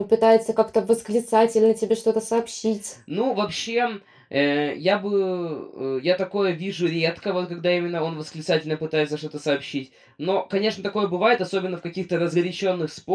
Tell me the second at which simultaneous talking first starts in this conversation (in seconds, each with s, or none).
none